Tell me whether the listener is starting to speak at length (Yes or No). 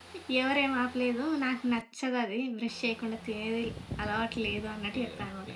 Yes